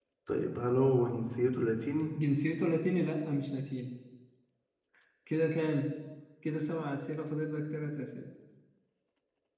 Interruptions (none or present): none